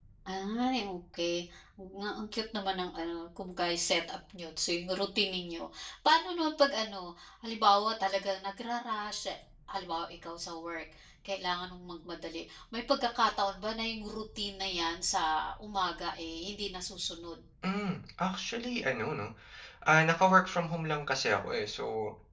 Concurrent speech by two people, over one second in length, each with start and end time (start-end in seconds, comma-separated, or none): none